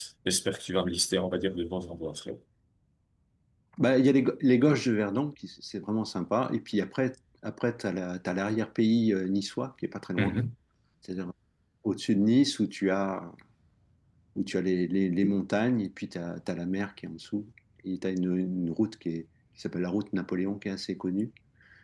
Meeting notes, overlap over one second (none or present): none